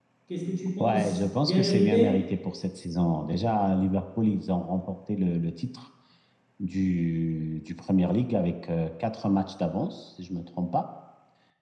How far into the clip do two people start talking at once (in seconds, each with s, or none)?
0.8 s